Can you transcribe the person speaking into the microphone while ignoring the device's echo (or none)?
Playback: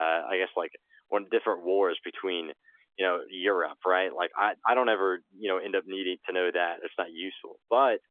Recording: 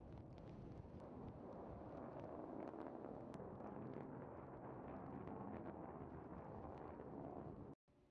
none